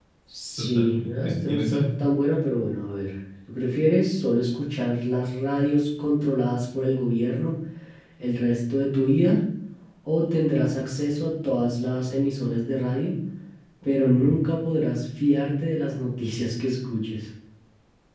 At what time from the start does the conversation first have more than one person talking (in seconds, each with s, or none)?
0.6 s